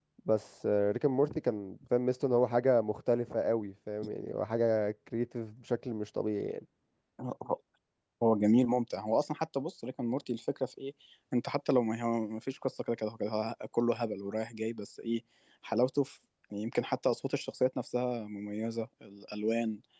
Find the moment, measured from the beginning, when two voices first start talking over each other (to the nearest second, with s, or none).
none